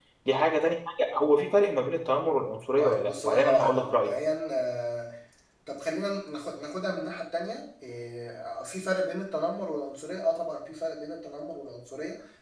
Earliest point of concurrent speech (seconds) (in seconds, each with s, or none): 2.8 s